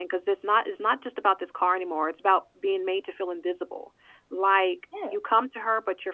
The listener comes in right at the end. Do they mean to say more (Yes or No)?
No